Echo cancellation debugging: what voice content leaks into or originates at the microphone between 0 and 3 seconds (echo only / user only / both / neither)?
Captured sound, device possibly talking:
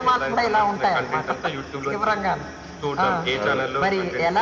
echo only